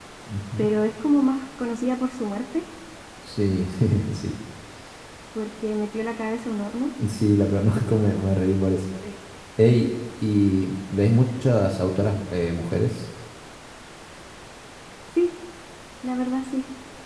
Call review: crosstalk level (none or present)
none